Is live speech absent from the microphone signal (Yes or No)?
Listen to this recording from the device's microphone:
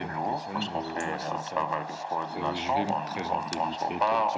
No